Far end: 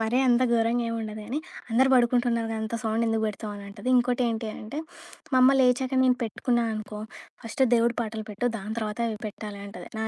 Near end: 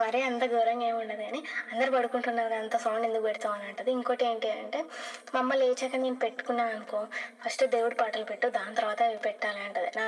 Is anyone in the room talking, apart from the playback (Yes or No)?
No